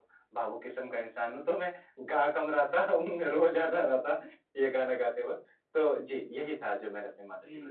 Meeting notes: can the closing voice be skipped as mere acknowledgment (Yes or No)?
No